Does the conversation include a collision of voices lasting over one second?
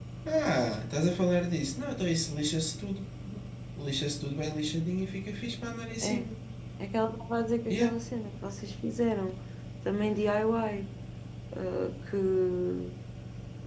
No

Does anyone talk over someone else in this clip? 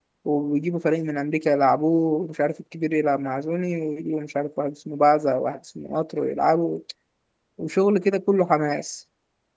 No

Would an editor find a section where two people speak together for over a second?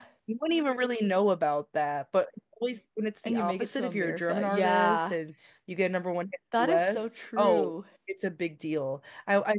Yes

